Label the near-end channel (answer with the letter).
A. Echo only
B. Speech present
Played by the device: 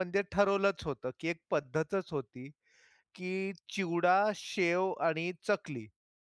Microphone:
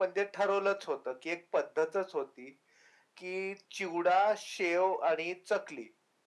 A